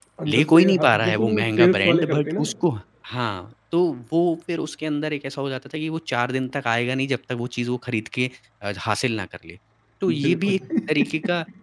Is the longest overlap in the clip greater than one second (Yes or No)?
Yes